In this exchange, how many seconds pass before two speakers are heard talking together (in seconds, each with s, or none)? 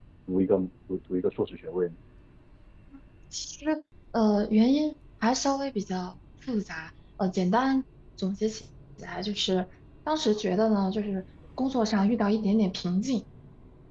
none